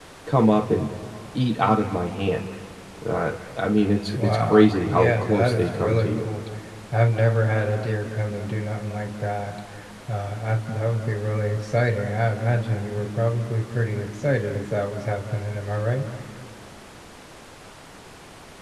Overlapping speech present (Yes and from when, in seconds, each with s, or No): Yes, from 4.1 s